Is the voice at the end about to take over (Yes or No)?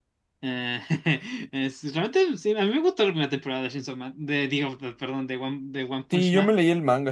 Yes